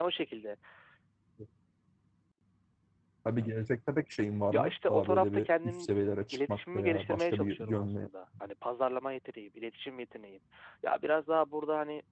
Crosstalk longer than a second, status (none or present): present